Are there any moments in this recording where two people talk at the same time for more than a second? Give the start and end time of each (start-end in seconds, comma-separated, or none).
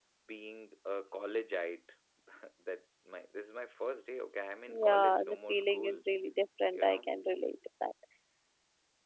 4.7-6.0